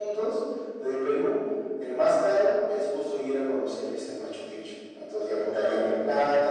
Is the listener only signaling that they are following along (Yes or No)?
Yes